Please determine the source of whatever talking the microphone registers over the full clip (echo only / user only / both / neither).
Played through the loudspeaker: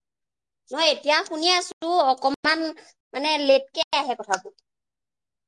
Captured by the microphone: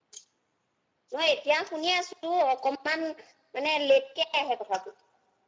echo only